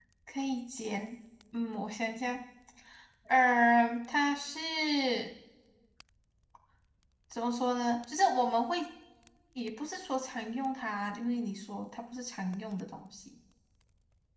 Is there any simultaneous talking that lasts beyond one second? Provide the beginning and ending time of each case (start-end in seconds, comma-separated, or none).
none